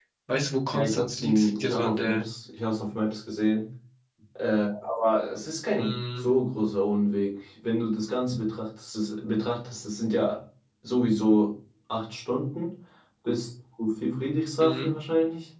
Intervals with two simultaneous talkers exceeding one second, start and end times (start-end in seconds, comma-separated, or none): 0.7-2.2